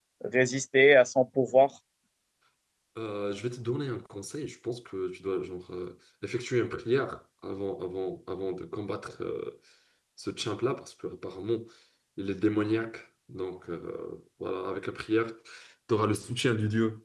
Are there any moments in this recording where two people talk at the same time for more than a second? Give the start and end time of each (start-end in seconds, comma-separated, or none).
none